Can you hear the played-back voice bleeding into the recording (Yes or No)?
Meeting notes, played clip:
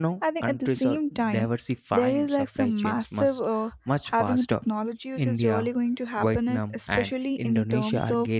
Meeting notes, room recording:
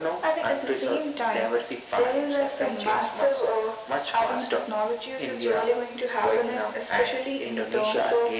Yes